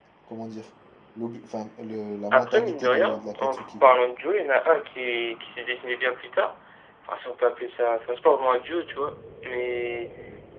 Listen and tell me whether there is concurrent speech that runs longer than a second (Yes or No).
Yes